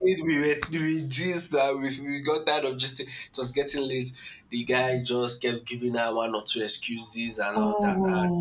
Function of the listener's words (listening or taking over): listening